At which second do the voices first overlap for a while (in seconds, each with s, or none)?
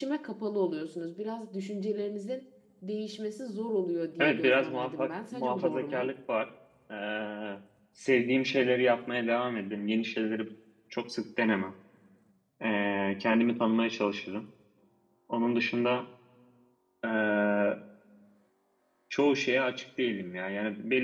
4.2 s